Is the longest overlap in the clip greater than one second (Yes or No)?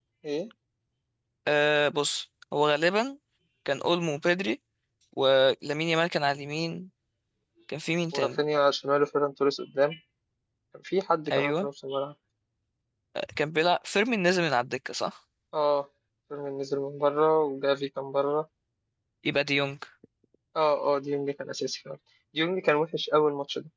No